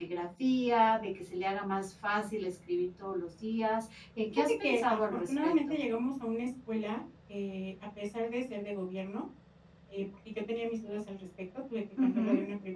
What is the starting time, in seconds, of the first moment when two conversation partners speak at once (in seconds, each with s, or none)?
4.3 s